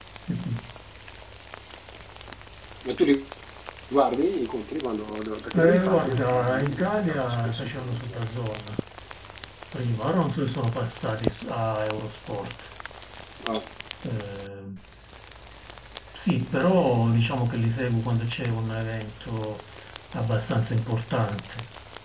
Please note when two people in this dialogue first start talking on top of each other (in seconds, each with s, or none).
5.5 s